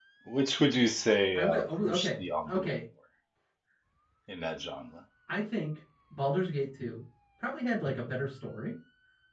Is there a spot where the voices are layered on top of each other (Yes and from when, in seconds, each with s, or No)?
Yes, from 1.4 s